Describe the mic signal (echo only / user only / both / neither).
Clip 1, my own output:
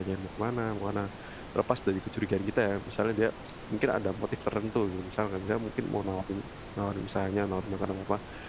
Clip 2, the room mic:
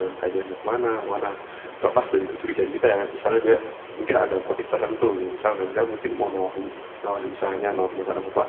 both